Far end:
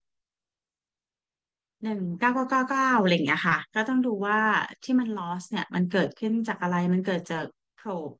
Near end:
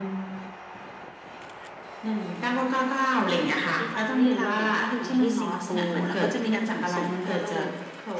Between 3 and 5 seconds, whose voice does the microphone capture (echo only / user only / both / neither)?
both